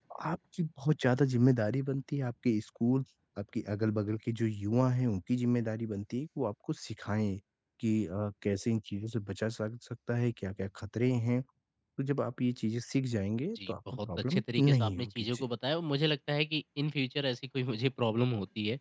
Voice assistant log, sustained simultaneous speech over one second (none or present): present